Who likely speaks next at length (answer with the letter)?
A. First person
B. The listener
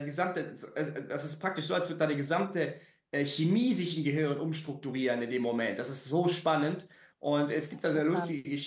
A